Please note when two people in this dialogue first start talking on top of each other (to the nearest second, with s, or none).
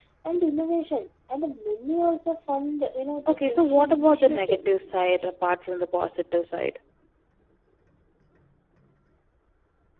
3 s